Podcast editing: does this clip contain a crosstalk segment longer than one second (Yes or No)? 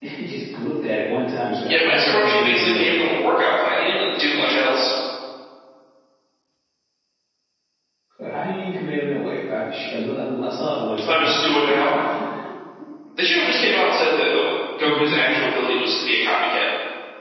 Yes